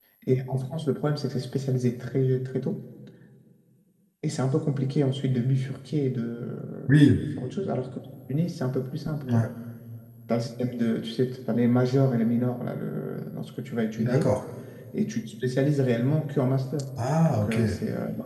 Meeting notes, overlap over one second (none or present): none